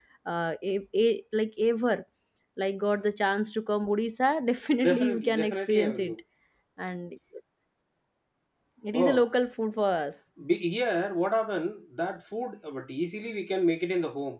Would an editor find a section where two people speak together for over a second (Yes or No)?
Yes